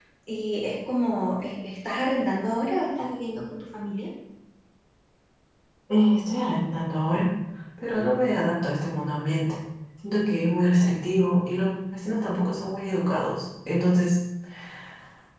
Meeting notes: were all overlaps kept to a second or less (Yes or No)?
Yes